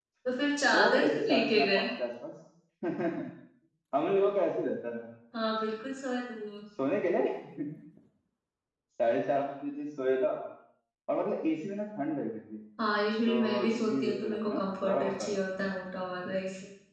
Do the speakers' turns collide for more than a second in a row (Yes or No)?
Yes